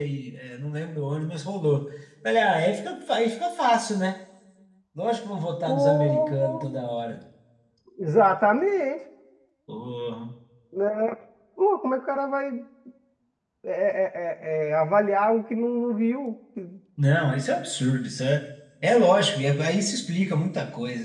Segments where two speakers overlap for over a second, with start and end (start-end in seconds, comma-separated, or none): 5.7-6.9